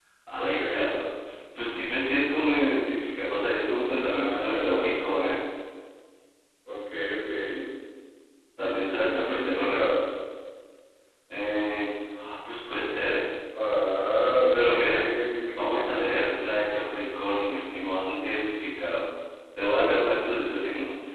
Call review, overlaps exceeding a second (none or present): present